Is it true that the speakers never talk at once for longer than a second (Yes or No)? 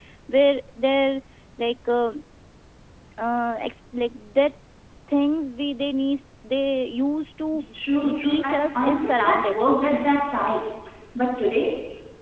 No